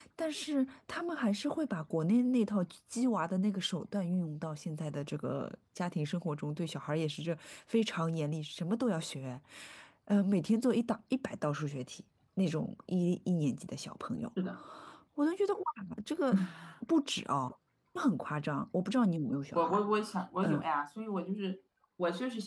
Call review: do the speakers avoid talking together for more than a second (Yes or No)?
Yes